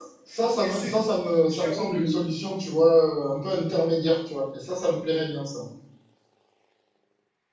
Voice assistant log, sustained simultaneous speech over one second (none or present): present